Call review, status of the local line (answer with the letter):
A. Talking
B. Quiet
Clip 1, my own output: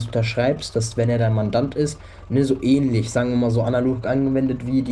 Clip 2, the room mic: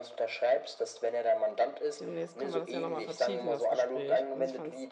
A